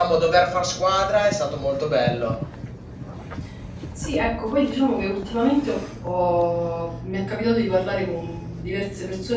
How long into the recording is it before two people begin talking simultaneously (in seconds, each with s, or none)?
none